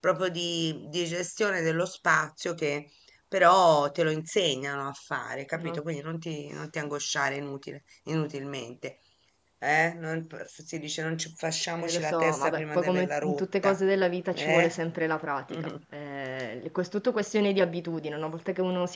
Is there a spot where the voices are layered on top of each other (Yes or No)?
Yes